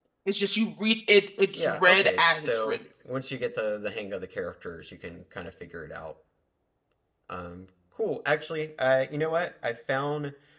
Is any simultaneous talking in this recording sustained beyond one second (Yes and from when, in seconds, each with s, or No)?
Yes, from 1.6 s